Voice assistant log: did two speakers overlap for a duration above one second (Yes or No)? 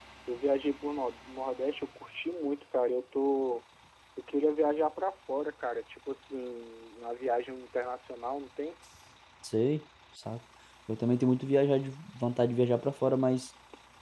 No